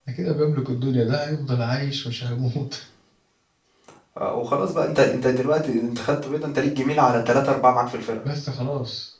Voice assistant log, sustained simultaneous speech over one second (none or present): none